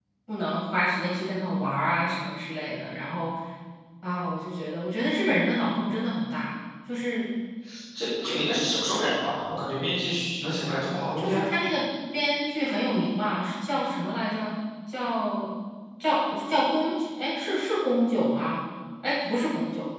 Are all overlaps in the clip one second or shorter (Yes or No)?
Yes